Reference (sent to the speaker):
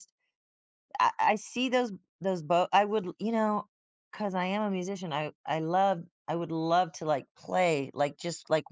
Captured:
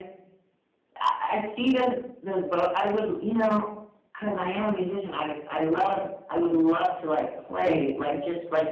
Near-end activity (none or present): present